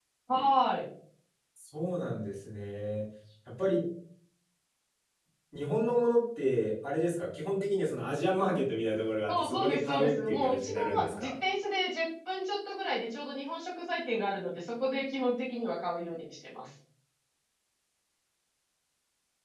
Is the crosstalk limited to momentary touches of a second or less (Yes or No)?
No